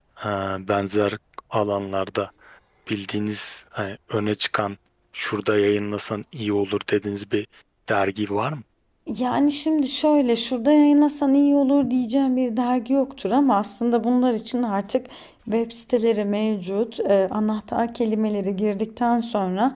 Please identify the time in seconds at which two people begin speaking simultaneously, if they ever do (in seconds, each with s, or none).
none